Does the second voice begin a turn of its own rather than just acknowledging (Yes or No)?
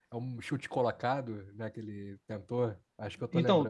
Yes